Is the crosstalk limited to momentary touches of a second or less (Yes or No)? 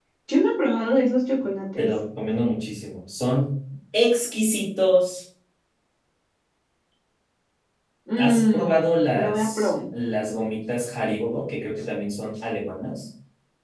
No